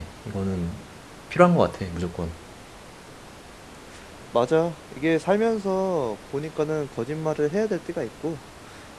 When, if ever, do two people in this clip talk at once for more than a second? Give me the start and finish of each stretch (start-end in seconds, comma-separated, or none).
none